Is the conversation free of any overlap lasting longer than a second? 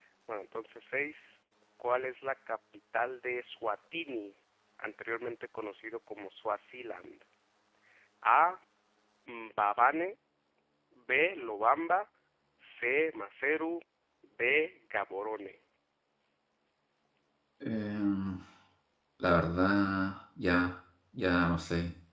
Yes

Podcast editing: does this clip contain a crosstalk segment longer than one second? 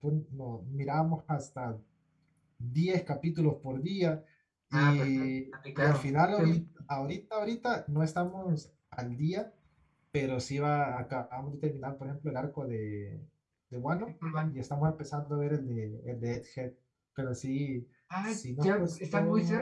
Yes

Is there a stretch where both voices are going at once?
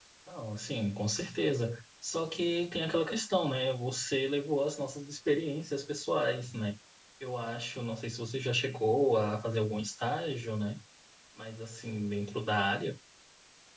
No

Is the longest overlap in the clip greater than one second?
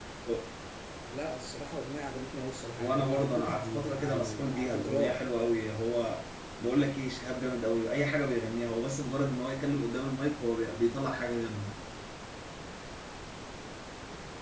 Yes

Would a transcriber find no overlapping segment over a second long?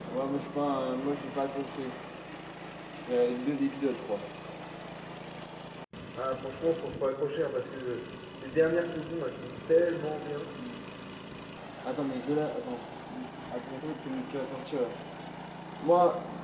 Yes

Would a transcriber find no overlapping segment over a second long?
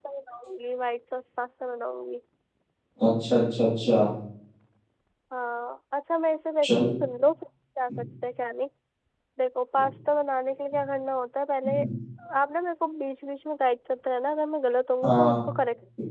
Yes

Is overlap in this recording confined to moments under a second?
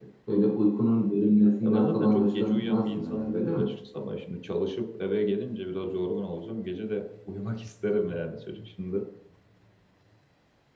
No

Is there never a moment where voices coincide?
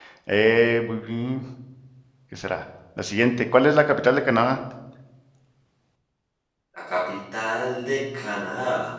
Yes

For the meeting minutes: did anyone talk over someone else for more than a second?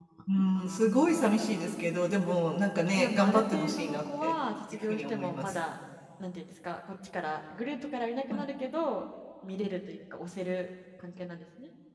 Yes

